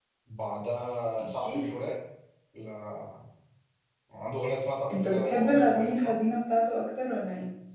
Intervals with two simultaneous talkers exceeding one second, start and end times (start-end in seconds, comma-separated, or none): 4.9-6.1